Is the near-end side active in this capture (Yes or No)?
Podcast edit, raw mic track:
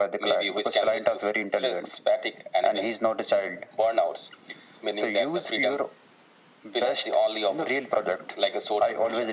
No